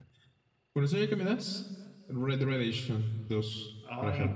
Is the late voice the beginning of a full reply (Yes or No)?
Yes